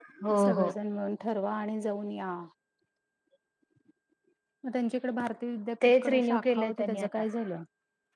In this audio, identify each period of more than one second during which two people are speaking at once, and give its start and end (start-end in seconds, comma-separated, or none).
5.8-7.2